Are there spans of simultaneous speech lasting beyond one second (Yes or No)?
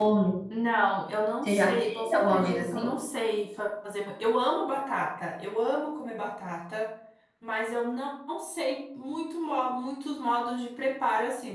Yes